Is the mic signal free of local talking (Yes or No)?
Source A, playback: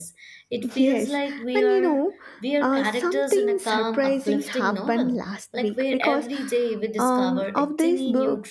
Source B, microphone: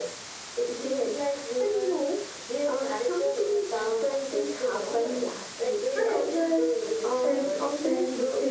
No